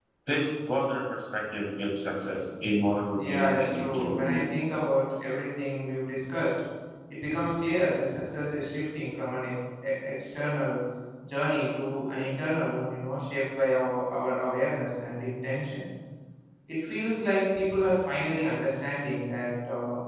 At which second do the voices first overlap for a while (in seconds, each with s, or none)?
3.2 s